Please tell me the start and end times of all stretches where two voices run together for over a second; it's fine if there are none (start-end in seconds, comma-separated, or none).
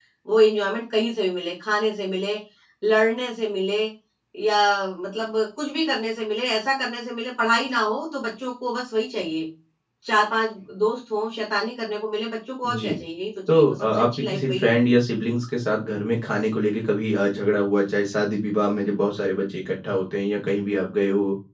13.5-15.0